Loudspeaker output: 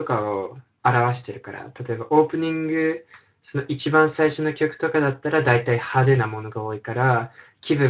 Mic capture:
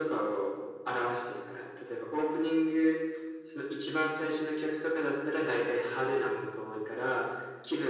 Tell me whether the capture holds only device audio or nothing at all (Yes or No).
Yes